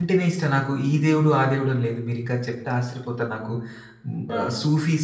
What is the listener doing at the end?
listening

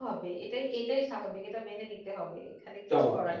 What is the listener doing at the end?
taking over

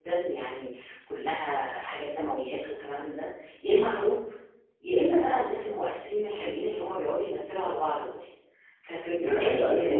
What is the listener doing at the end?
taking over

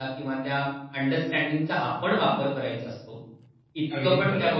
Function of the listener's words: listening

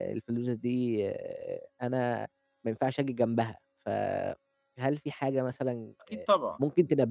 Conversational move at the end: listening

